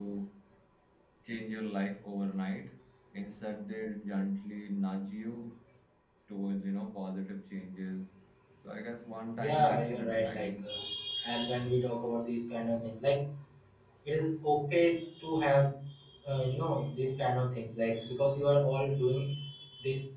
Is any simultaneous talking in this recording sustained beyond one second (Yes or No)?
Yes